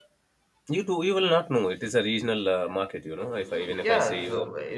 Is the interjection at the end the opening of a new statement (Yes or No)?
Yes